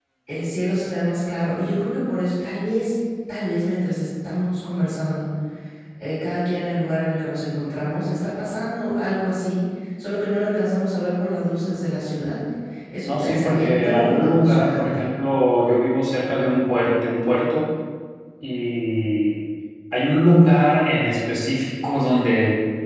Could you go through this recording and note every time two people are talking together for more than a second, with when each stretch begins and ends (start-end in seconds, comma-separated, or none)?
13.0-15.0